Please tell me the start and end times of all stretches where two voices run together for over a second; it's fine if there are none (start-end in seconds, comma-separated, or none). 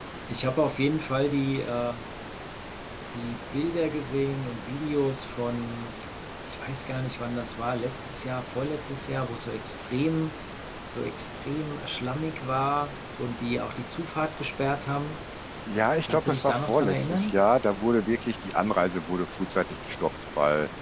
16.1-17.4